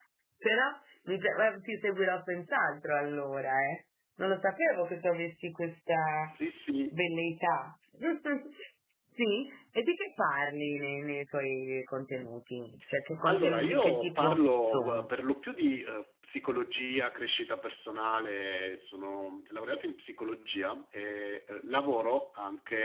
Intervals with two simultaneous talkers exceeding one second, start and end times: 13.3-15.1

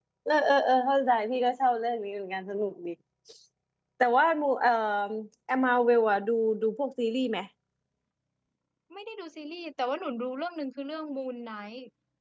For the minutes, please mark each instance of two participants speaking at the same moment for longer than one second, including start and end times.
none

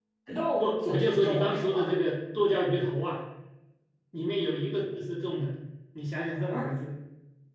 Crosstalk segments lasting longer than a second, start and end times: 0.6-1.9

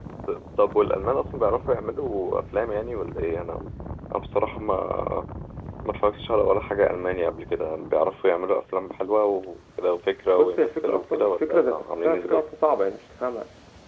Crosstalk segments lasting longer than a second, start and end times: 10.4-12.4

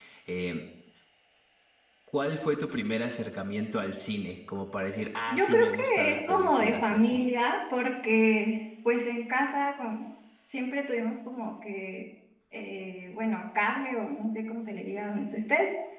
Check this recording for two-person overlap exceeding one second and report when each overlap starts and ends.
5.3-7.2

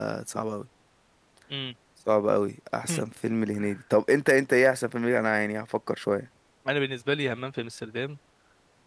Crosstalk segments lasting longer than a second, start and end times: none

